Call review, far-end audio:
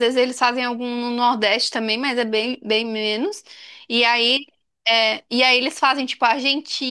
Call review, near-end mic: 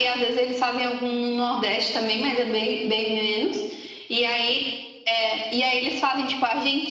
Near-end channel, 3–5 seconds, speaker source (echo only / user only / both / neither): echo only